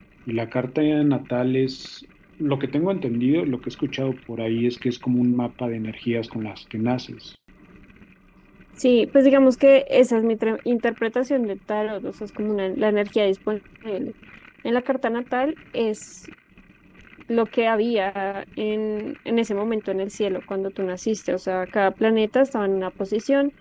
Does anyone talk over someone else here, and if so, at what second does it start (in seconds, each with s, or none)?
none